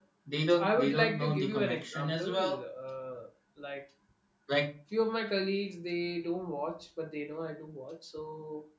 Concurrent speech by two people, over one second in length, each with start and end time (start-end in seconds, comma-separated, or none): 0.6-2.6